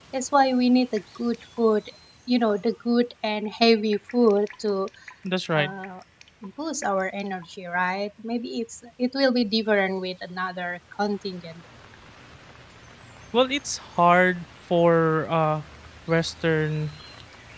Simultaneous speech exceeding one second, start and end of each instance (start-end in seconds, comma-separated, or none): none